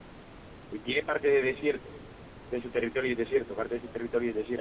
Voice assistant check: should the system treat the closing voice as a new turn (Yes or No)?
Yes